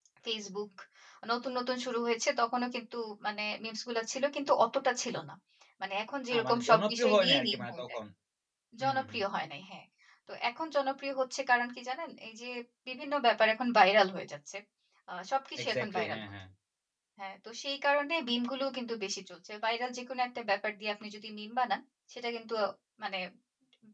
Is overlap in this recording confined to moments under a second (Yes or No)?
No